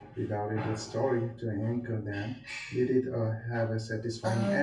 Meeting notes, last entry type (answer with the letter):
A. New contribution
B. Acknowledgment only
A